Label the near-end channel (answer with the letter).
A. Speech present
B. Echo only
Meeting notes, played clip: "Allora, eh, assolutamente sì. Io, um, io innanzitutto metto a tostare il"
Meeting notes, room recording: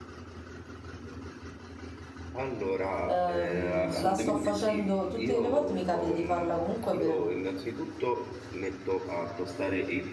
A